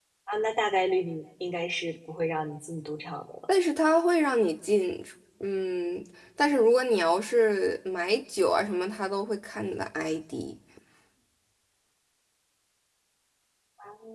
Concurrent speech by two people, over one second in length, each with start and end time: none

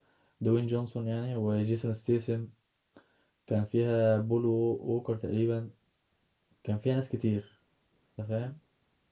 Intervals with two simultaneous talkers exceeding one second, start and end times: none

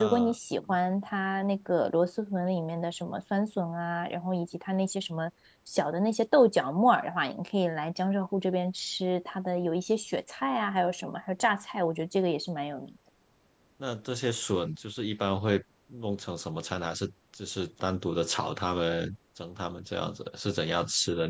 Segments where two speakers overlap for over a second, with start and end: none

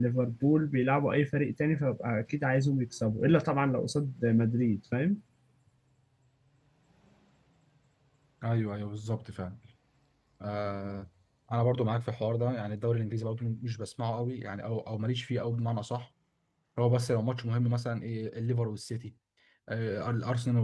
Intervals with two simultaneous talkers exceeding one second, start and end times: none

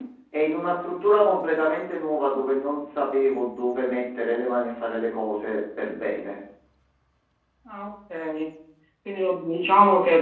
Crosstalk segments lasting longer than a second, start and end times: none

